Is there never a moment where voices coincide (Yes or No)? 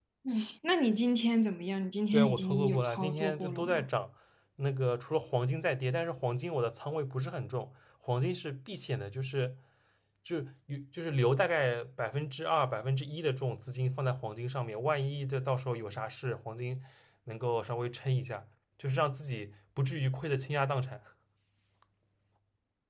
No